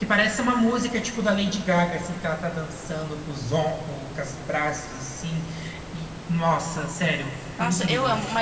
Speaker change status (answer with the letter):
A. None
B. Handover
B